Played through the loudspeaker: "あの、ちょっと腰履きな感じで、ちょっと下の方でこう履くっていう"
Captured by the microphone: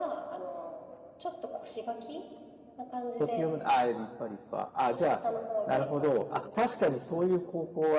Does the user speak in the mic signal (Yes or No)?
Yes